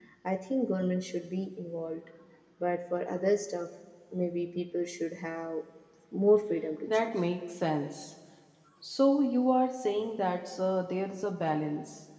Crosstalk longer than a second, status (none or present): none